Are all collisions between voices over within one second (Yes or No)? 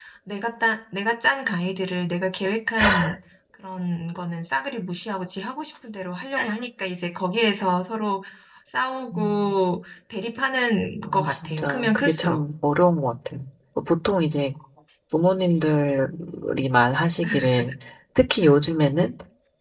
No